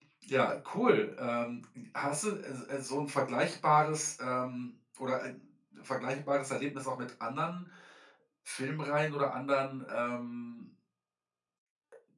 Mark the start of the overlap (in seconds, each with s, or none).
none